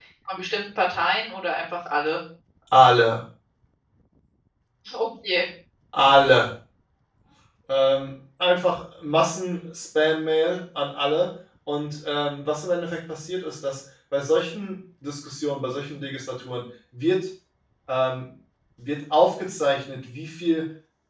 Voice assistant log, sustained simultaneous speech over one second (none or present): none